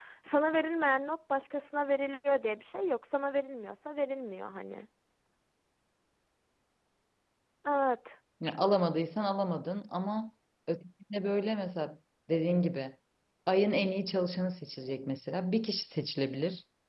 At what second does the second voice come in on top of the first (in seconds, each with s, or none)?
none